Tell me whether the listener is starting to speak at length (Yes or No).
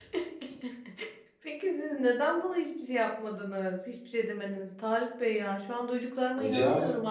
No